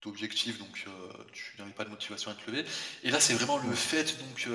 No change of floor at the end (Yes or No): Yes